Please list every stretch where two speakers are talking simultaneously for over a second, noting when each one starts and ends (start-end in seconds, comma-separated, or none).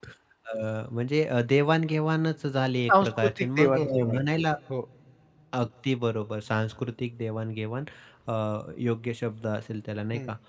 2.9-4.2